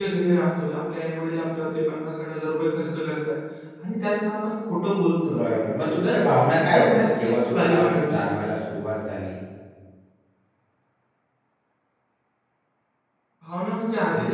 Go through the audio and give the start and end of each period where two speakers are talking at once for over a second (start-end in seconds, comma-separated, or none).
6.5-8.5